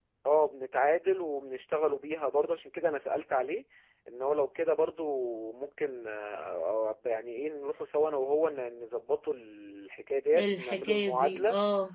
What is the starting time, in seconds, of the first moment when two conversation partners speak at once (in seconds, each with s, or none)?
10.3 s